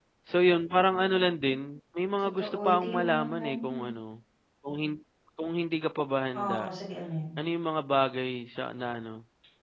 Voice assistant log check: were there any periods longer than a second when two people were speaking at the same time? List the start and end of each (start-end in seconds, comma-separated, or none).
2.2-3.9